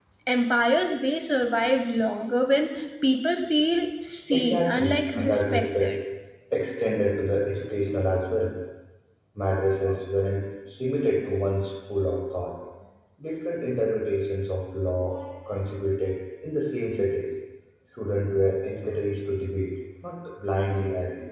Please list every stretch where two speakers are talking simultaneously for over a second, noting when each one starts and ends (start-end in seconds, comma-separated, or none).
4.3-6.0